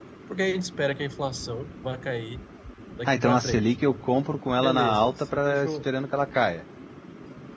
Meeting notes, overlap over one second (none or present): present